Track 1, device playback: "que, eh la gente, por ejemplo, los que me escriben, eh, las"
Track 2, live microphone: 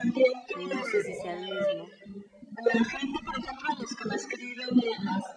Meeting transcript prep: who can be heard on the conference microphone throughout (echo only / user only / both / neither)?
both